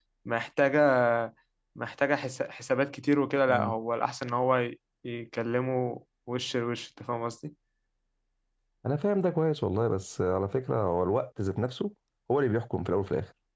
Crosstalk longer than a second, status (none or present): none